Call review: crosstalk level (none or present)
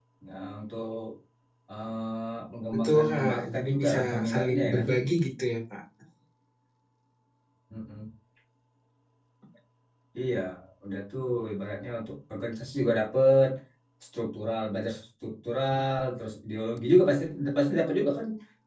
present